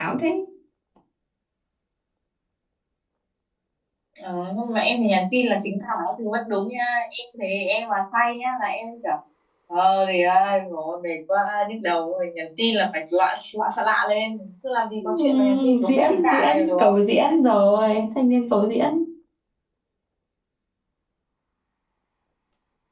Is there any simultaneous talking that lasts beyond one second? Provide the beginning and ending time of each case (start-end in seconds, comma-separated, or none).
15.0-16.9